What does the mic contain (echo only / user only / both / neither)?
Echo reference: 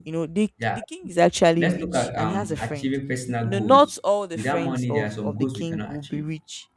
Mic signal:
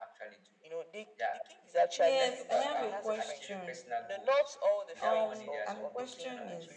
both